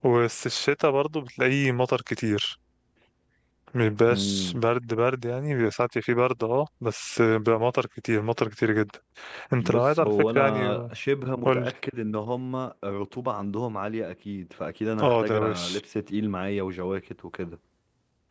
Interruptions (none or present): present